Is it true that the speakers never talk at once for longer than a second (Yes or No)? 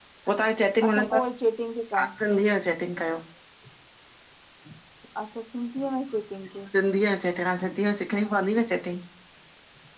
Yes